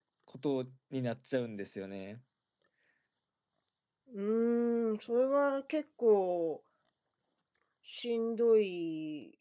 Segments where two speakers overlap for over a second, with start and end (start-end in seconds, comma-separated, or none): none